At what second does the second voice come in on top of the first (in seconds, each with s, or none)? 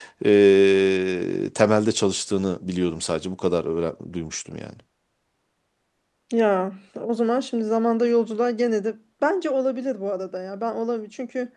none